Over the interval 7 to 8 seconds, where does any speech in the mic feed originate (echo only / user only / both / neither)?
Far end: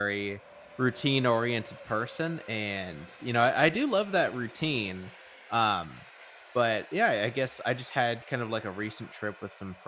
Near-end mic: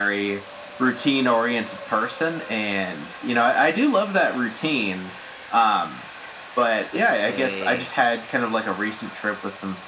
both